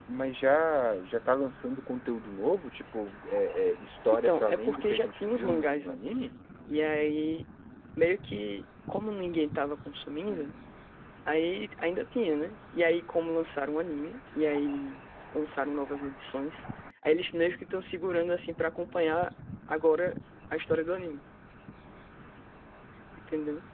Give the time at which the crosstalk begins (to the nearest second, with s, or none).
4 s